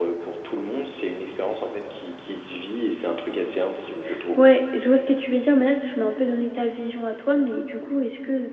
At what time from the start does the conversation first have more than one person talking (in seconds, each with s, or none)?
none